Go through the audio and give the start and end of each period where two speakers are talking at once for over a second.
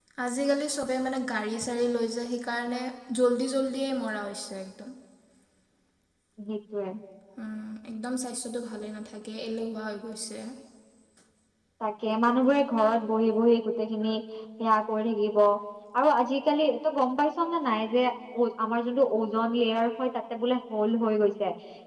none

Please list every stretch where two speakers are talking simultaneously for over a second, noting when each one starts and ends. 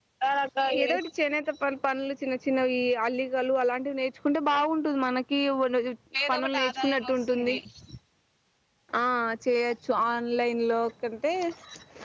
6.3-7.5

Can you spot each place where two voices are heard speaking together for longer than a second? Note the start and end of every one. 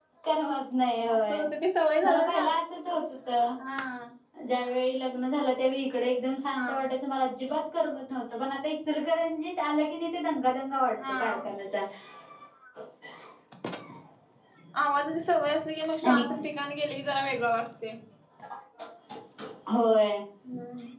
none

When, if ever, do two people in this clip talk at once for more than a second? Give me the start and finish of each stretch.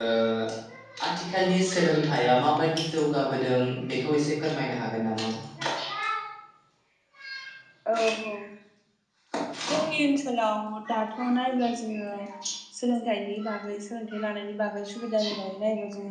none

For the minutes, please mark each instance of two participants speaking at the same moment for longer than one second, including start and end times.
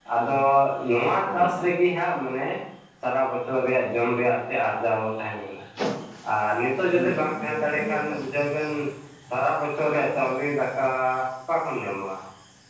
6.9-8.5

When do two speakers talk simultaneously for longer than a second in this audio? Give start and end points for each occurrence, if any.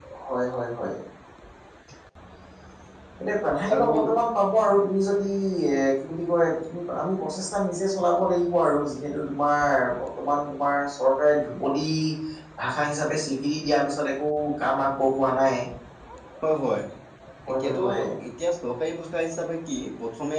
none

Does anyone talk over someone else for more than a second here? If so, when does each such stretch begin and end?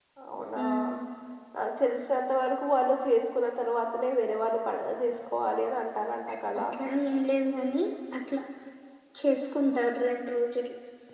none

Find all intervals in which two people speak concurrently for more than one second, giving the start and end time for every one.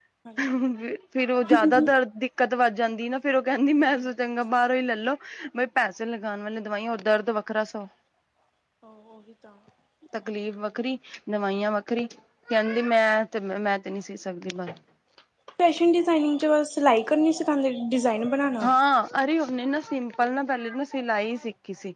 none

